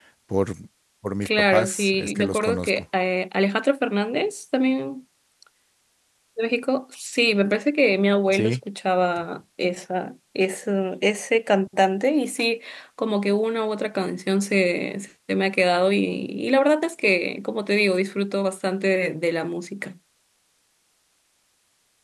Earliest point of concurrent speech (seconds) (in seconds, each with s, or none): 1.2 s